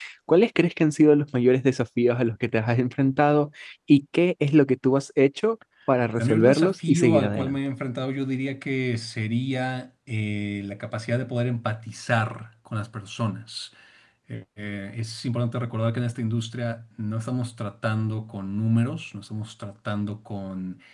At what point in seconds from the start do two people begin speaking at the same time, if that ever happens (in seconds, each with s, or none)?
6.2 s